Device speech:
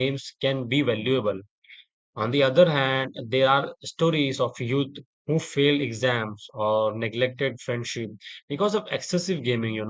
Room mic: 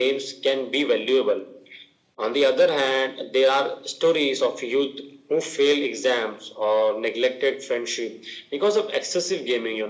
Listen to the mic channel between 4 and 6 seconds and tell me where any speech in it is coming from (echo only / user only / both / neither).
echo only